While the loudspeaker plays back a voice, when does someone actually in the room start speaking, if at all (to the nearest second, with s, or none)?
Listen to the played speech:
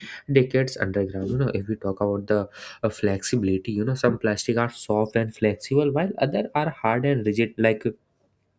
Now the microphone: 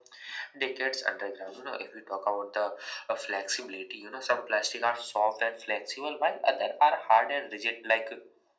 none